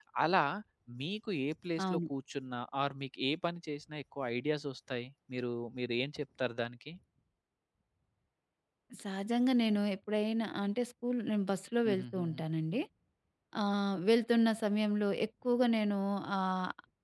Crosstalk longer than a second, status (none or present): none